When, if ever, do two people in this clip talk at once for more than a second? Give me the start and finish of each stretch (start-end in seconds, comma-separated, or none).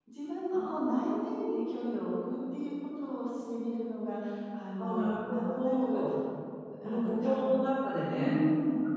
4.8-6.0